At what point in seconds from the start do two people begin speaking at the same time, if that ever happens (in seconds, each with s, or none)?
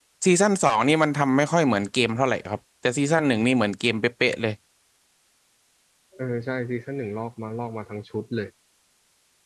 none